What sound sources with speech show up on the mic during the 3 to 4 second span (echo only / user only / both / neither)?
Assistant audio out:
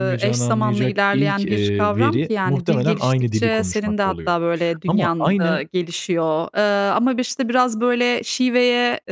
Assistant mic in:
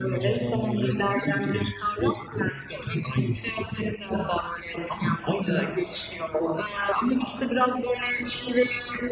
echo only